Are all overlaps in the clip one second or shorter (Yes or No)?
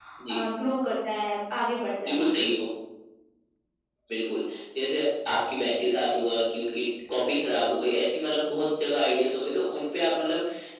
Yes